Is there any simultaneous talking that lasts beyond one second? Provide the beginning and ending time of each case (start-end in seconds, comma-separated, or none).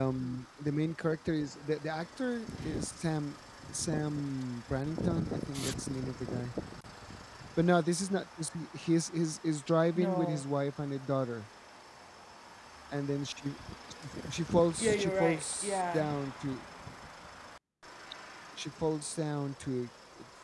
14.8-16.0